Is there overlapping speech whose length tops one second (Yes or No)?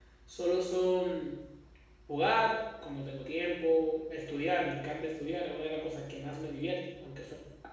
No